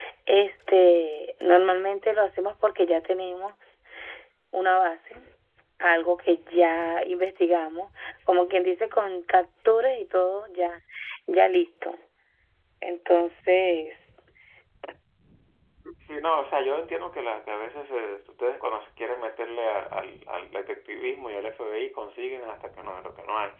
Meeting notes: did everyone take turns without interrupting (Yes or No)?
Yes